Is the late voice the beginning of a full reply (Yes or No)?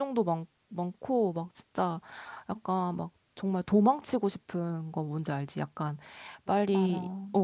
No